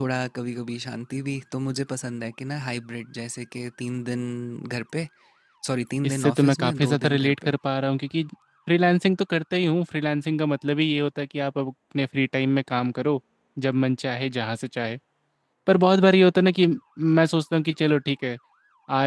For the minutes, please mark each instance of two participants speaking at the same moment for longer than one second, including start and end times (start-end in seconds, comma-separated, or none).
6.0-7.5